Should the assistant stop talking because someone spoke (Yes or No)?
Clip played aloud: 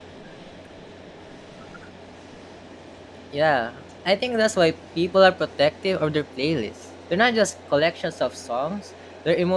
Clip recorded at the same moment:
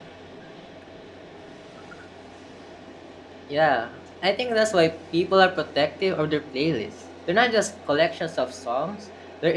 No